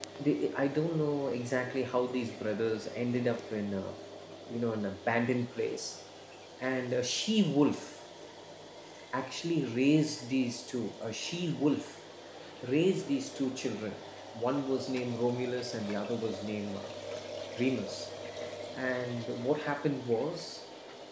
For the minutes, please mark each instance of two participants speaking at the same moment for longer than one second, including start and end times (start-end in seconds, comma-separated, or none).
none